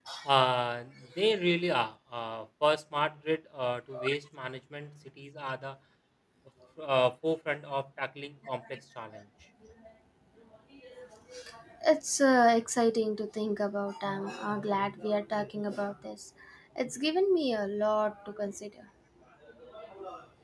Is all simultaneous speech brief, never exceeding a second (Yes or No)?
Yes